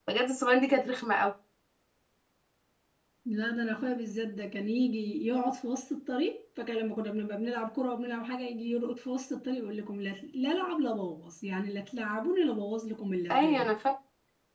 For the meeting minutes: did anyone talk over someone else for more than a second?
No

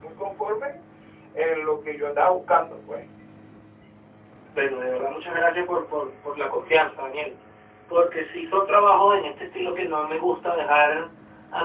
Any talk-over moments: No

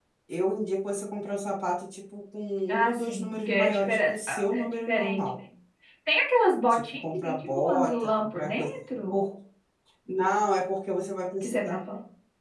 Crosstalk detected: Yes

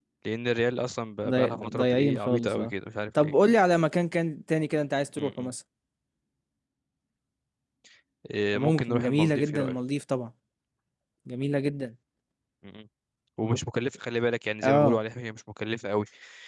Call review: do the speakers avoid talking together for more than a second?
No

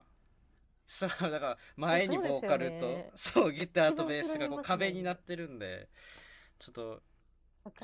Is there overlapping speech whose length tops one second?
Yes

